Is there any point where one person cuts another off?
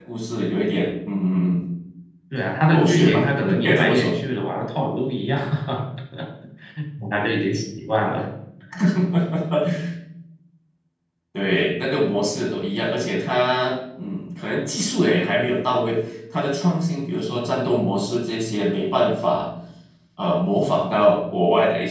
Yes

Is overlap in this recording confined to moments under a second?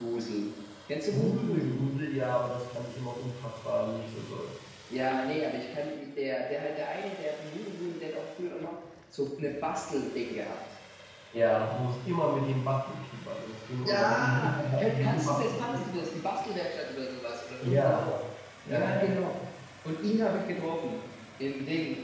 No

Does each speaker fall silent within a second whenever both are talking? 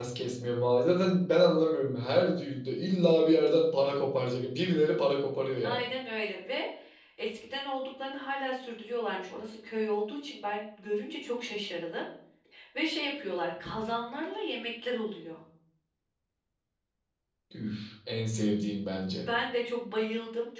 Yes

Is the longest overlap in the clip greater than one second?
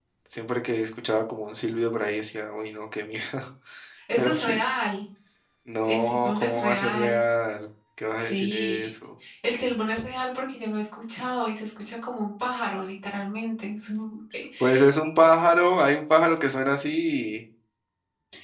Yes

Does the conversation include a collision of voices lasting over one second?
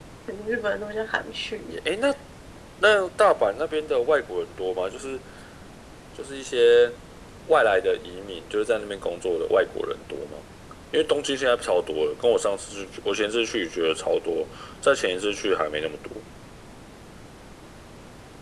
No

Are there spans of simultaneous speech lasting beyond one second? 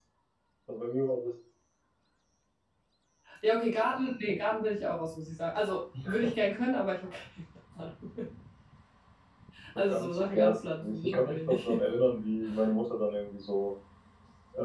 Yes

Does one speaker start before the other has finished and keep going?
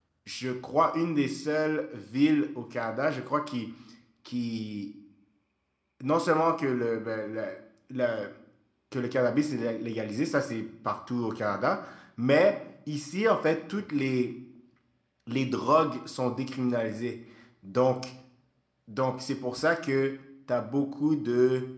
No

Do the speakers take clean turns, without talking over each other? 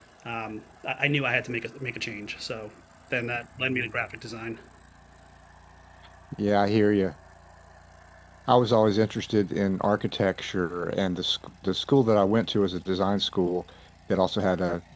Yes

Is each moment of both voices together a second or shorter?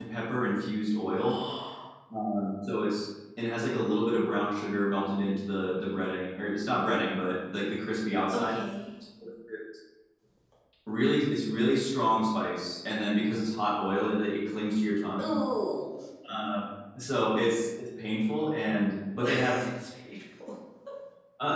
Yes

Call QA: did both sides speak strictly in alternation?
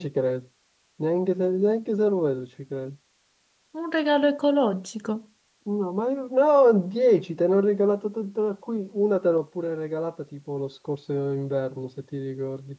Yes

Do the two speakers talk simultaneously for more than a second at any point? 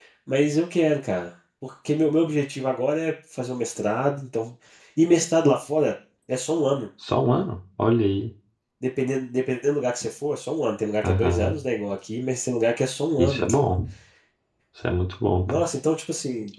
No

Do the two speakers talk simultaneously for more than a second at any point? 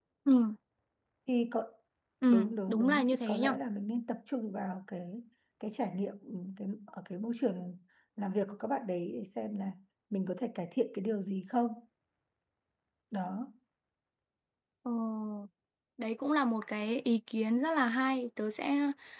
Yes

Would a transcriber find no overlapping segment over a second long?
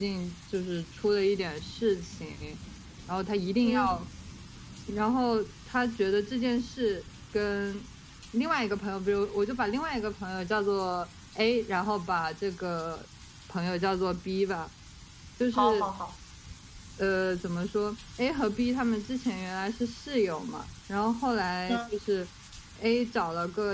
Yes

